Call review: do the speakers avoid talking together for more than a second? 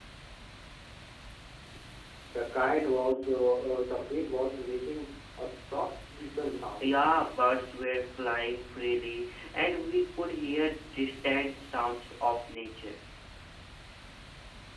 Yes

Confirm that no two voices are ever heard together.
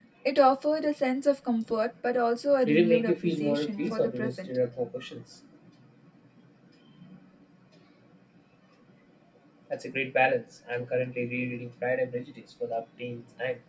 No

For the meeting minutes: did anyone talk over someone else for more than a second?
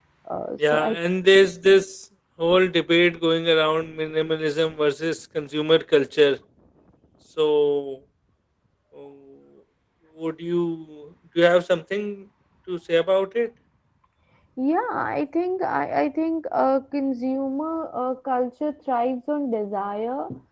No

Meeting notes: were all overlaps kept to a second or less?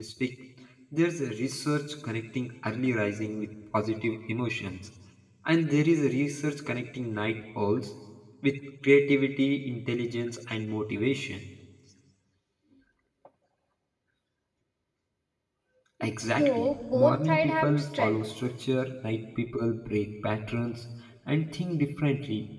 No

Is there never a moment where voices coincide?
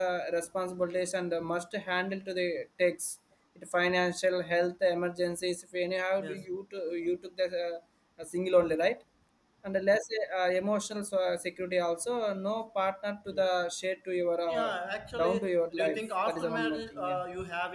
No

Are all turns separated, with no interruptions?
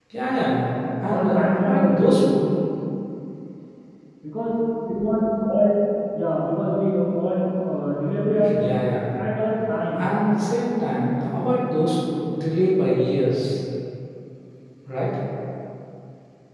No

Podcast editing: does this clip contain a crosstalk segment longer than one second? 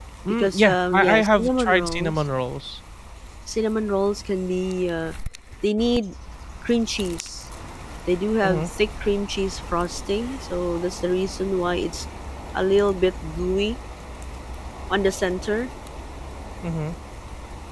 Yes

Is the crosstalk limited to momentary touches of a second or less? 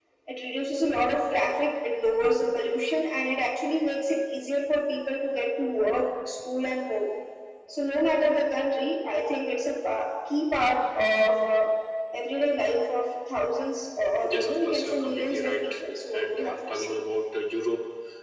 No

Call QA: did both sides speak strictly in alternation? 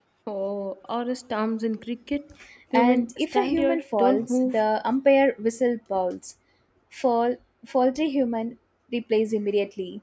No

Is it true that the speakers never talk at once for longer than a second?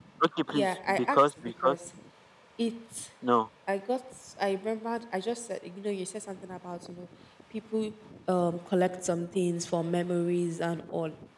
No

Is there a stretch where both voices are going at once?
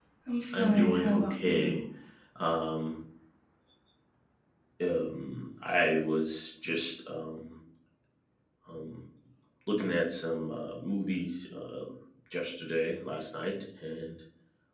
Yes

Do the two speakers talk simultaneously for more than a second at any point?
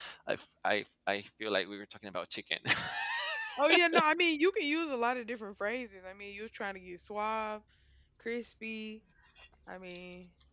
No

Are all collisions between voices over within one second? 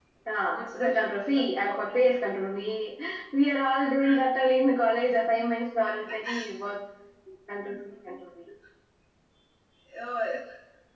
No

